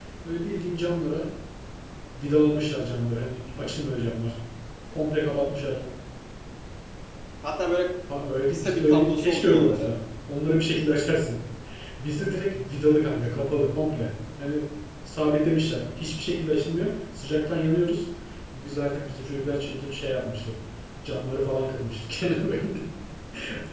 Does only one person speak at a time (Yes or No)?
No